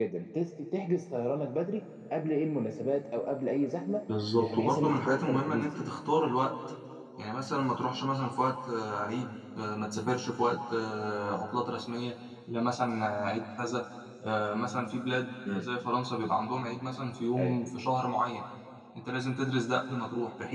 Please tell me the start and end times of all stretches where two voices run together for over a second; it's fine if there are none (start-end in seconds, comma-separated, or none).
4.4-5.8